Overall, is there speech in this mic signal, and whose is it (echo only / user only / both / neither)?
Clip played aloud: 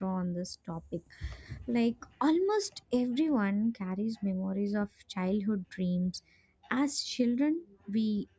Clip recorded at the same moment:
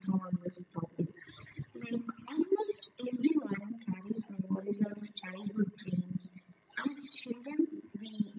echo only